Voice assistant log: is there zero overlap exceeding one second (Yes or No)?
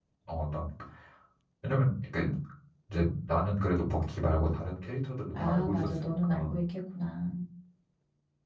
No